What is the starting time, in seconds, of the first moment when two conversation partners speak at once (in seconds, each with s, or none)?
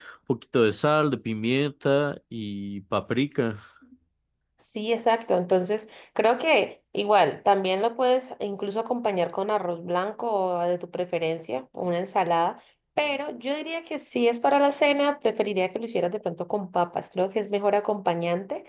none